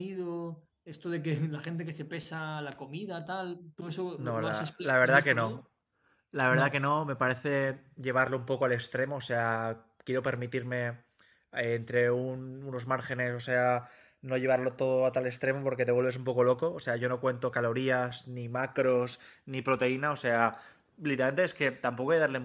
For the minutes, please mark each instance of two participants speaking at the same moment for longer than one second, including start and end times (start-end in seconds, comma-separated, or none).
4.2-5.6